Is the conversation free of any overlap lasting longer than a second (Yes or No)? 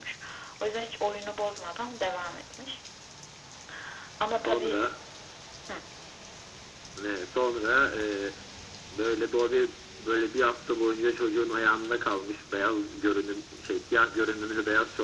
Yes